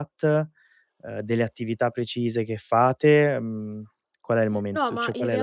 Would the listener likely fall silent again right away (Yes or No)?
No